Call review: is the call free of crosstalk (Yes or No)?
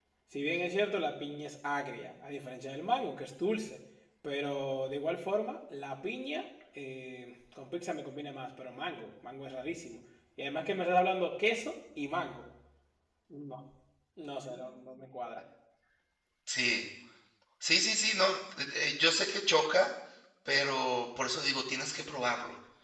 Yes